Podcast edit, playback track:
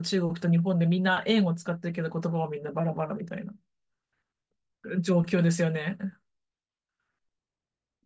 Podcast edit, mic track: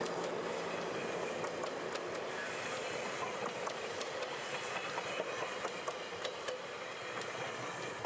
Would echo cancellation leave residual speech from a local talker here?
No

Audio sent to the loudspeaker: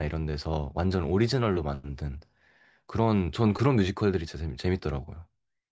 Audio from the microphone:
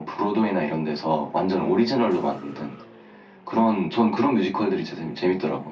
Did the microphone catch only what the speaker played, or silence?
Yes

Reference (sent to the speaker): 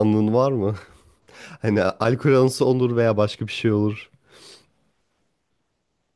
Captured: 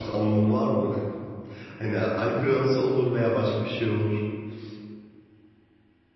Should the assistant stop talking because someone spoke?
No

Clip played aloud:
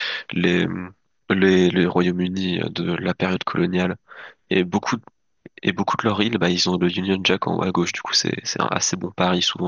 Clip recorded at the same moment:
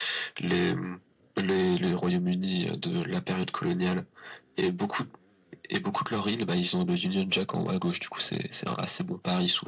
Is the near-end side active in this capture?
No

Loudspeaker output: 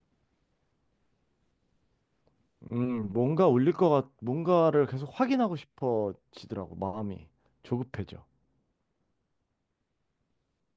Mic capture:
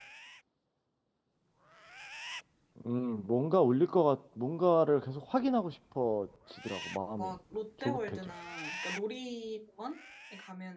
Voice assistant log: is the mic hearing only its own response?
No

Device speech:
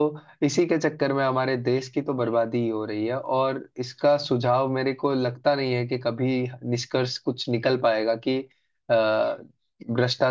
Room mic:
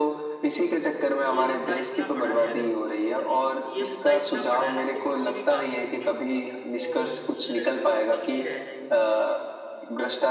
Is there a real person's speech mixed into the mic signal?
Yes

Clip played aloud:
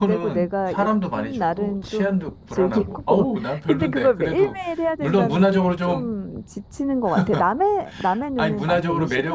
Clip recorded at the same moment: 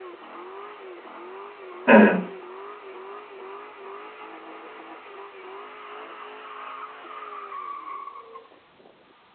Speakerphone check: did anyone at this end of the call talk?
Yes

